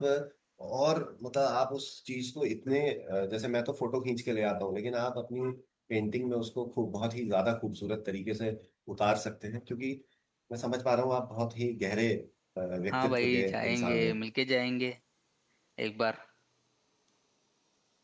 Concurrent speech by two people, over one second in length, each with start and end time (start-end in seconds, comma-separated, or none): 12.9-14.2